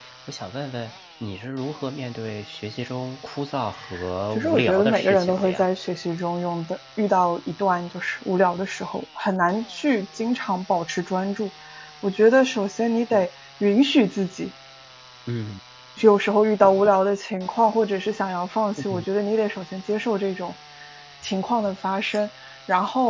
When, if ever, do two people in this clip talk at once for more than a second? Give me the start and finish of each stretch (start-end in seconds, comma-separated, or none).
4.3-5.7